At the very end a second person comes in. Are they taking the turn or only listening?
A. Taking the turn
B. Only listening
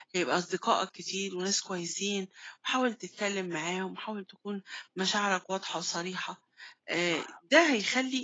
B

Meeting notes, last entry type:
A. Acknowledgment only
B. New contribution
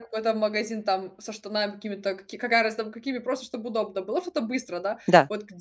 A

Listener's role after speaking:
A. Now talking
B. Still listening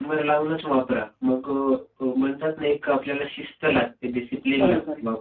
A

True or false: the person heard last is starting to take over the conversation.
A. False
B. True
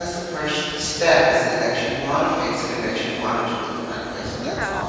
B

